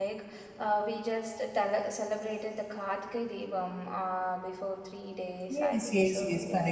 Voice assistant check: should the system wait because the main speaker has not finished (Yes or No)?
No